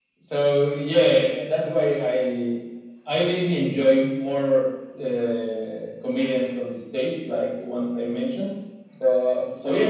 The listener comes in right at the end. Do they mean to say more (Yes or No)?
Yes